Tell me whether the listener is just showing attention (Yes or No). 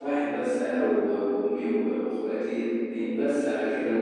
Yes